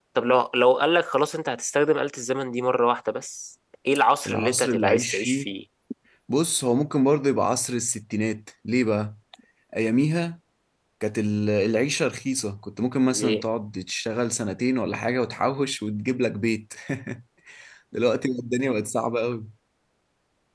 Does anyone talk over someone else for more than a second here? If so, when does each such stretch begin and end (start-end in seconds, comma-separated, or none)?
4.3-5.5